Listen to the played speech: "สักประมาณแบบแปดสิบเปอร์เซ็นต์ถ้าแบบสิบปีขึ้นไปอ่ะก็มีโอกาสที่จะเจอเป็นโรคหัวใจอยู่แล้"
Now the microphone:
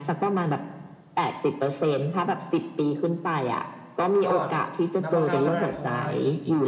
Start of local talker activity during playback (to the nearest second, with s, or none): 4 s